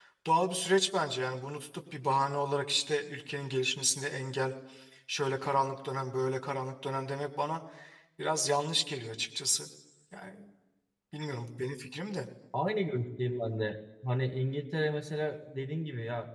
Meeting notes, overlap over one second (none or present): none